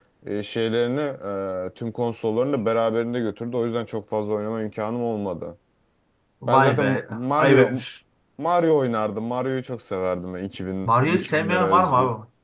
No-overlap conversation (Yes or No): No